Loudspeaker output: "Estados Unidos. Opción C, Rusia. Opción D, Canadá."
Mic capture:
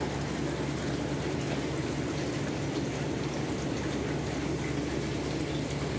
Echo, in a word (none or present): none